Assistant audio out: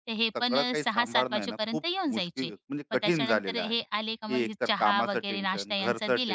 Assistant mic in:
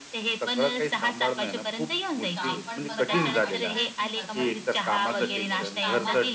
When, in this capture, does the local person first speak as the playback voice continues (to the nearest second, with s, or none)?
2 s